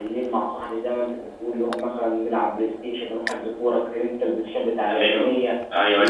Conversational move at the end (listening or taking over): taking over